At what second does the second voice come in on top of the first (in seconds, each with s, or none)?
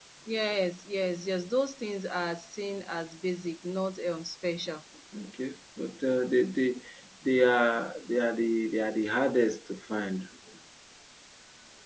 none